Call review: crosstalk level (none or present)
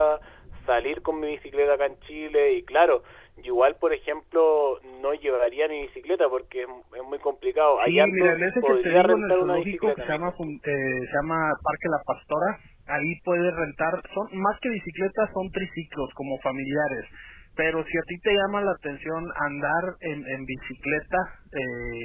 present